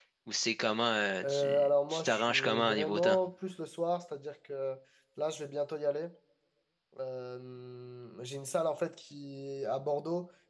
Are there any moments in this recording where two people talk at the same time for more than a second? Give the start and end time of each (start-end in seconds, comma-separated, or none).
1.2-3.2